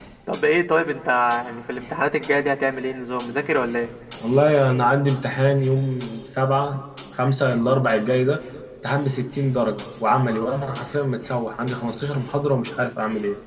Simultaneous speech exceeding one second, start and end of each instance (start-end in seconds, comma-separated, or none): none